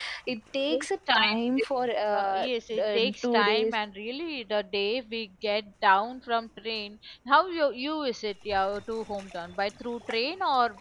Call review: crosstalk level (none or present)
present